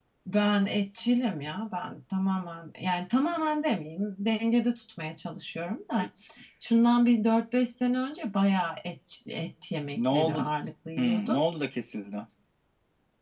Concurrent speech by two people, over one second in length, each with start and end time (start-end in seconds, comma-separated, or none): none